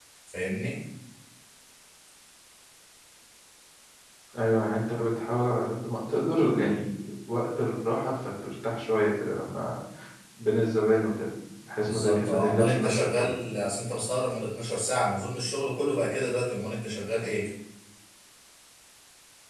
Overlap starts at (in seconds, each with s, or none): 11.8 s